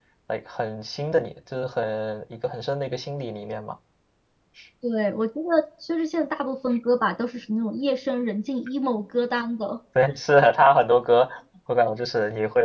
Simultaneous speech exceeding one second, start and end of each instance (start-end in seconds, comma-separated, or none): none